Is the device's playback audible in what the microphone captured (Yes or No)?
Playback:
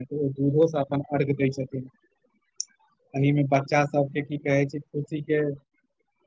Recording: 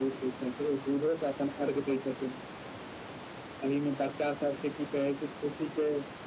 Yes